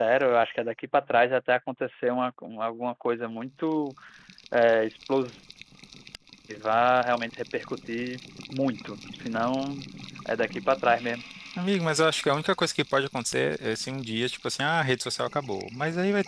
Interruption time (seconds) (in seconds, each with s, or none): none